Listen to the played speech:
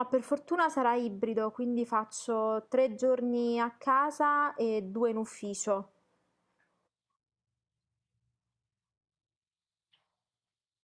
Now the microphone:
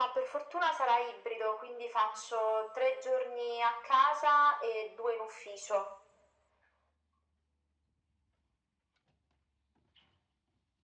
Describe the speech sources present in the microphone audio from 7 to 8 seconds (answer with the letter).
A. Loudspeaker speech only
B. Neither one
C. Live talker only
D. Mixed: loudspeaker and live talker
B